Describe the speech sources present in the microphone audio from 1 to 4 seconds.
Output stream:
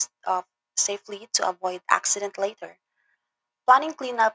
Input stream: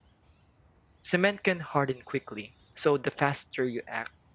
user only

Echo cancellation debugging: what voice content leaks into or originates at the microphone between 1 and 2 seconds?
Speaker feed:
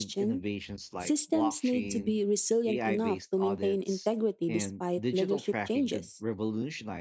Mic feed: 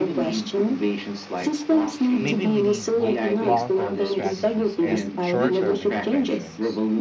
echo only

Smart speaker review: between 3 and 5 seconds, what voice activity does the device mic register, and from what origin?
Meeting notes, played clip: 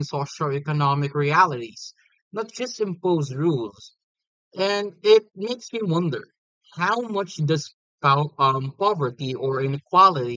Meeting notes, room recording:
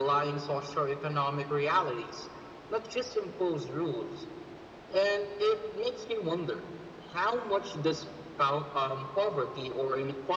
echo only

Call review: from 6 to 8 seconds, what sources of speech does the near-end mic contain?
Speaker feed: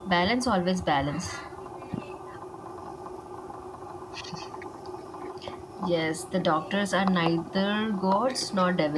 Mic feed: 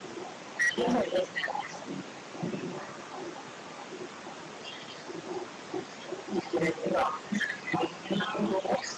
echo only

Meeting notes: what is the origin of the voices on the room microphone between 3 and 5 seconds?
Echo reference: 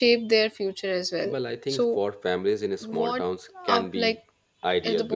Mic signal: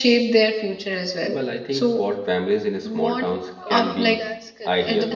both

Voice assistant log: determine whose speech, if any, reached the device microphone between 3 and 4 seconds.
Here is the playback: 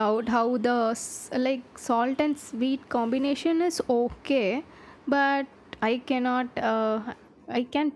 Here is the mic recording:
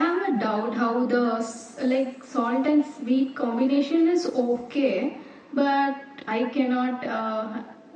echo only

